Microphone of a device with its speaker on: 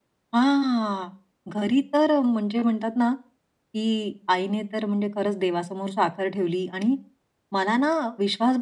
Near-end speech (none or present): none